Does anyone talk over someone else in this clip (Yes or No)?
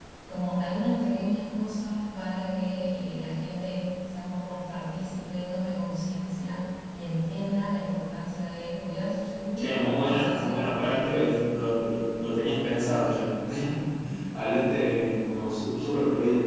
Yes